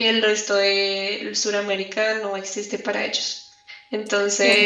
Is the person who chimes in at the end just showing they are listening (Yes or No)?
Yes